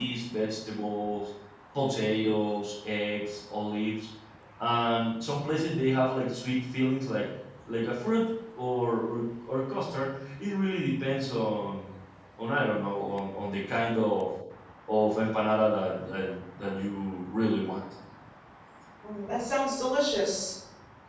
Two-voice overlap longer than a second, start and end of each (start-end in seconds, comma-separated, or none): none